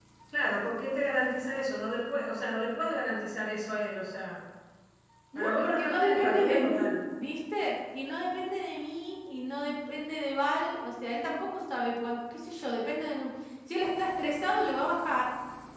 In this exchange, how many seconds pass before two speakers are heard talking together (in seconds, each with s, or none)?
5.3 s